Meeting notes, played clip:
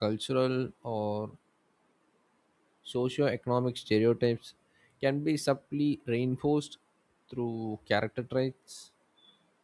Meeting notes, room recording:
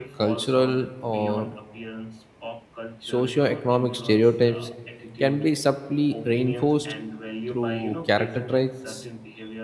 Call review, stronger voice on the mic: echo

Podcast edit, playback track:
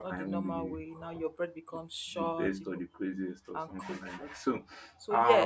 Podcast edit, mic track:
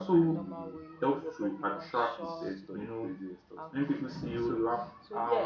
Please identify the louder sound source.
user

